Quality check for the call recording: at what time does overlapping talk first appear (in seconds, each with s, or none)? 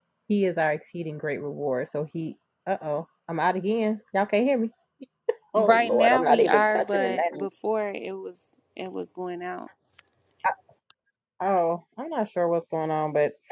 5.6 s